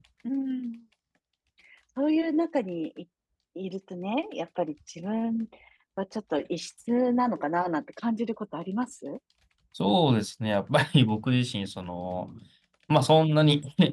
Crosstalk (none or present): none